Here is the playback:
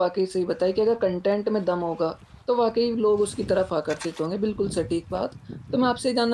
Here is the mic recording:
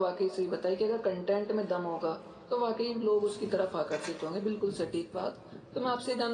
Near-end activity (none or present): none